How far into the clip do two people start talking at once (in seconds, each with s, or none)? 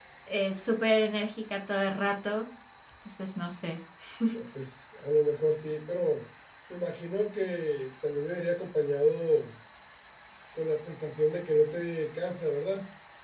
none